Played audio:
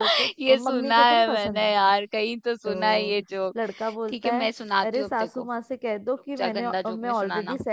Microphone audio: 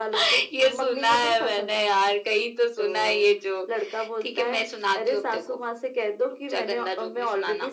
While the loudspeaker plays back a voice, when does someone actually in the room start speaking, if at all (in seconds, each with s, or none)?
none